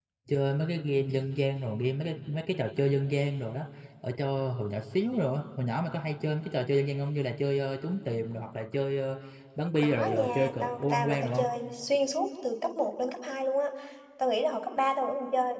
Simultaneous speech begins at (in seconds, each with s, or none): 9.8 s